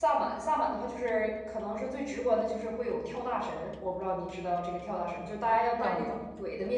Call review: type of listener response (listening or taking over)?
listening